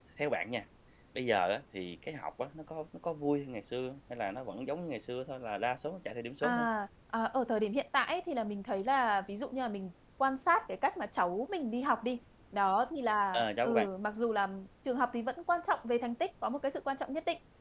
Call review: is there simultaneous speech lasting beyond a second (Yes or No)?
No